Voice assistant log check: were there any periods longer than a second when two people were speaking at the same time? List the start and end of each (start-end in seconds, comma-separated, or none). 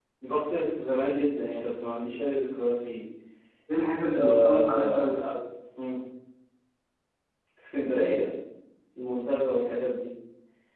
4.1-5.3